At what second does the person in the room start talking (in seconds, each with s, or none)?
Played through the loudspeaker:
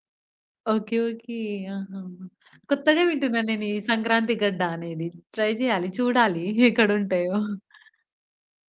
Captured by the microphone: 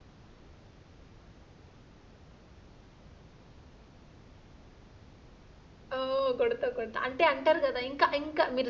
6.0 s